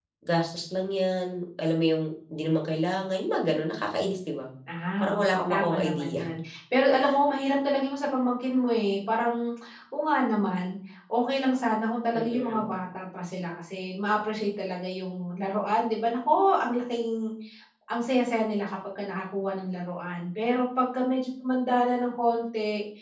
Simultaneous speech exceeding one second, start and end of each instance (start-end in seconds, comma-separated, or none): 5.0-6.2